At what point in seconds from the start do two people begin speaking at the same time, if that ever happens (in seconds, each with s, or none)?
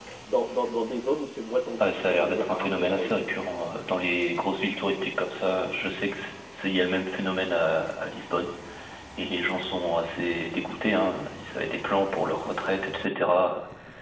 1.8 s